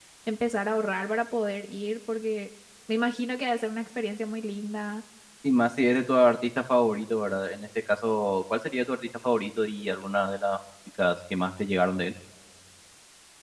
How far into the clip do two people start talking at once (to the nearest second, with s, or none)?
none